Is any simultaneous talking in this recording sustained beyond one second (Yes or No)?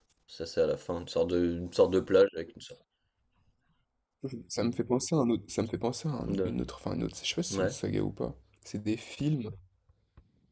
No